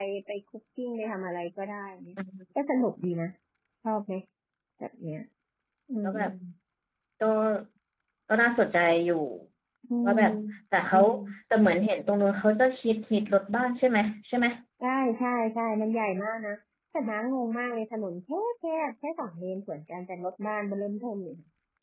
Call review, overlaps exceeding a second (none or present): none